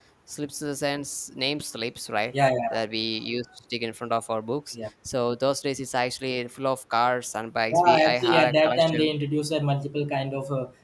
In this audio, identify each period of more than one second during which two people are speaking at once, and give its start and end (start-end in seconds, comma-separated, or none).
7.7-9.1